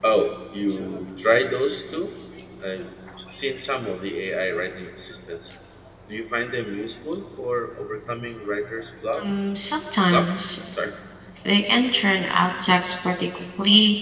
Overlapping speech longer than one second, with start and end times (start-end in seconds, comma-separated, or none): none